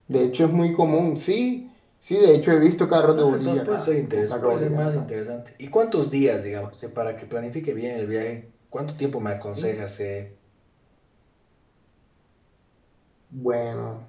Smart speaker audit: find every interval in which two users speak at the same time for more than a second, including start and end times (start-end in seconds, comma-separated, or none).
3.1-5.1